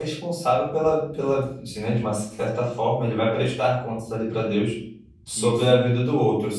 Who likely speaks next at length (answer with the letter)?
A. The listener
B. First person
B